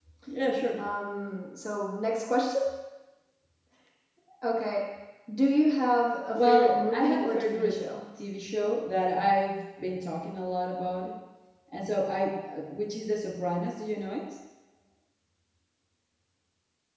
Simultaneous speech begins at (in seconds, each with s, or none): 6.3 s